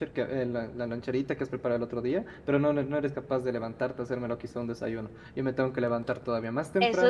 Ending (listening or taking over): taking over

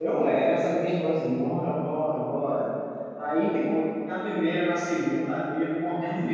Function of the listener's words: listening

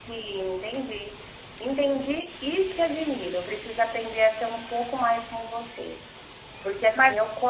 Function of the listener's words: listening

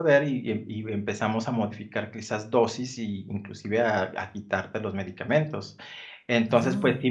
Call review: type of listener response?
listening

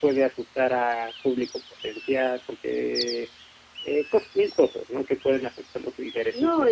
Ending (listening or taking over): taking over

